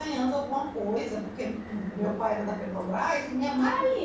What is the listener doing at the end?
listening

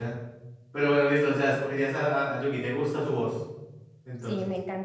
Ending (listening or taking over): taking over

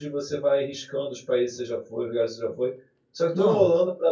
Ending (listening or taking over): listening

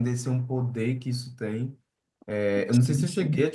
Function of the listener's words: listening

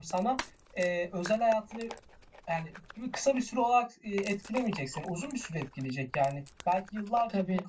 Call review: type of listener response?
listening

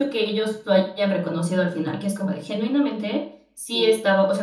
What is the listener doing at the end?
listening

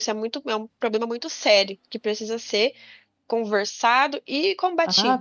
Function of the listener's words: taking over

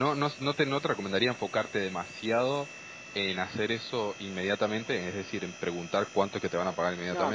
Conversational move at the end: taking over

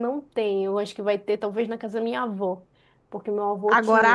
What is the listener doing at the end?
taking over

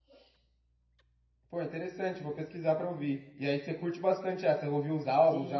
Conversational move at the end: taking over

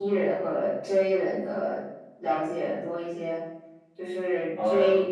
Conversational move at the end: listening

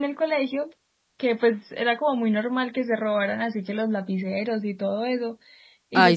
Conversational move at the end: listening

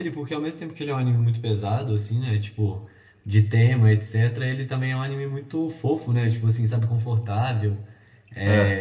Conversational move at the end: listening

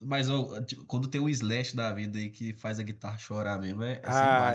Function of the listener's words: taking over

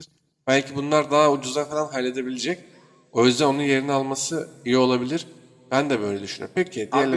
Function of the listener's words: taking over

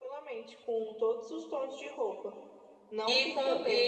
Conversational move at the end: taking over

